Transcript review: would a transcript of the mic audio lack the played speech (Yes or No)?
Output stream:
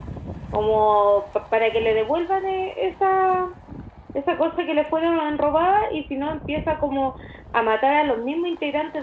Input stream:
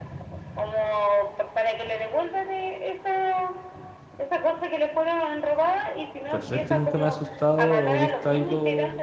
No